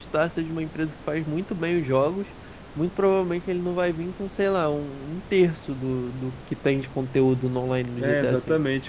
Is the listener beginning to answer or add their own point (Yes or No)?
Yes